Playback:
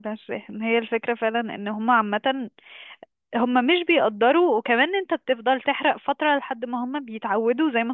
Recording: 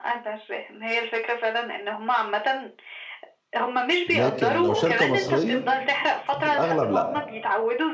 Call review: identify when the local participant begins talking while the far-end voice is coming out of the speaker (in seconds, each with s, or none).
4.1 s